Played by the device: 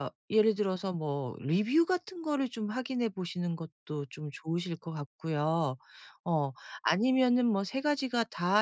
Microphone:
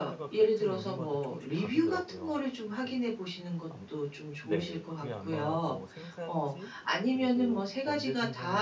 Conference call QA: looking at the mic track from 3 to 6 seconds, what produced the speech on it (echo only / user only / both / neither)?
both